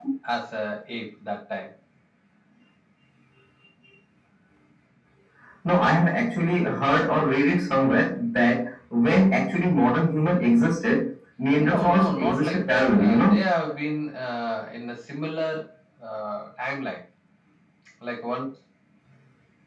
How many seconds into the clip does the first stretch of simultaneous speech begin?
11.6 s

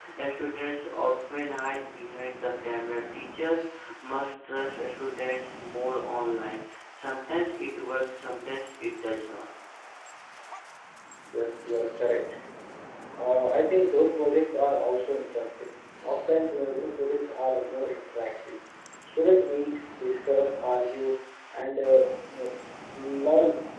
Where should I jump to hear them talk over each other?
none

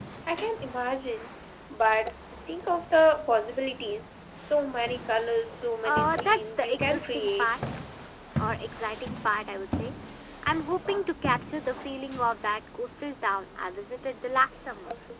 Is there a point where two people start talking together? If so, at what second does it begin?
5.8 s

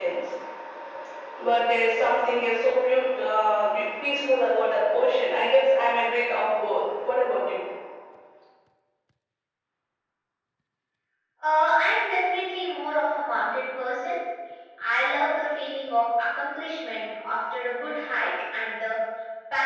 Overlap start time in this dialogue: none

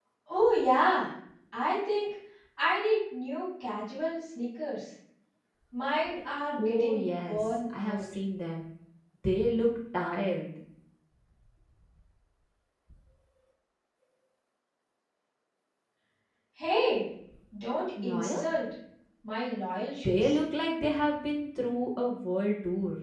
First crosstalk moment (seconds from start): 6.6 s

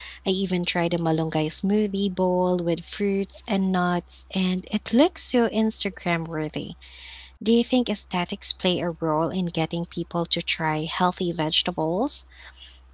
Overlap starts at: none

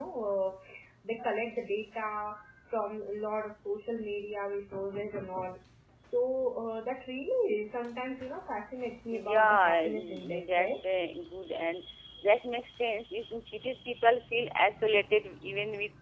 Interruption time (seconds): 9.1 s

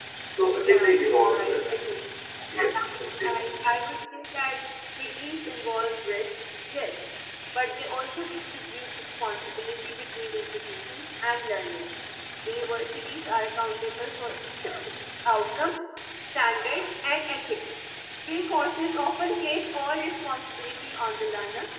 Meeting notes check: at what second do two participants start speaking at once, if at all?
0.5 s

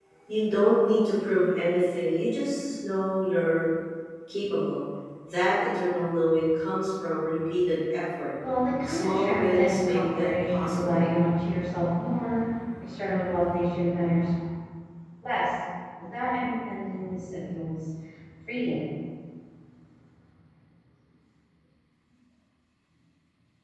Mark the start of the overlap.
8.8 s

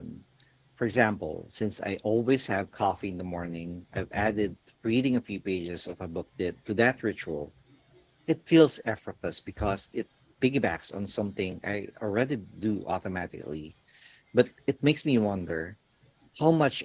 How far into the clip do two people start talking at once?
none

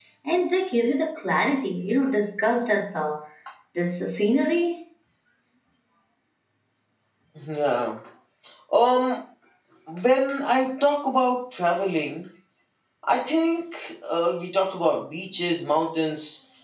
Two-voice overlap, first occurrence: none

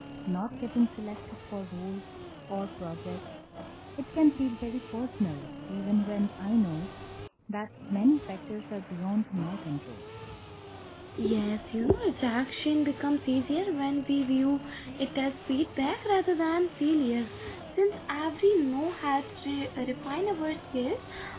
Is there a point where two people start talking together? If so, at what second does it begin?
none

